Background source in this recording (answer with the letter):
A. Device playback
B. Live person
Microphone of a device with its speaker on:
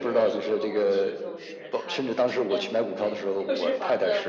B